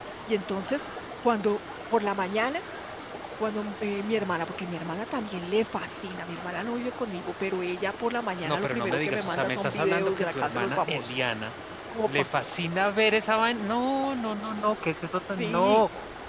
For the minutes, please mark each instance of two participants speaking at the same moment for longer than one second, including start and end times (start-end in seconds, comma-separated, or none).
8.4-11.2